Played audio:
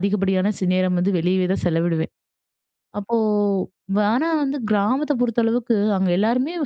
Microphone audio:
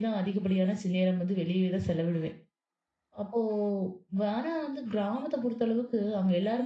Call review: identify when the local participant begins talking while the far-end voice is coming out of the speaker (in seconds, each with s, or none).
none